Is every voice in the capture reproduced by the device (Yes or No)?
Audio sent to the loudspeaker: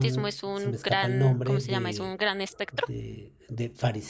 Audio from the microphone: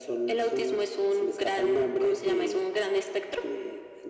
Yes